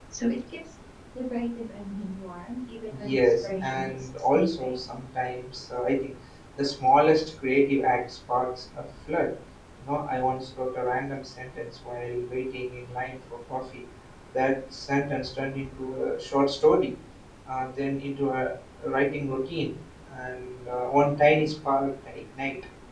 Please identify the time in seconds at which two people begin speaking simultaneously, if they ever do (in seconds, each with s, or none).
2.9 s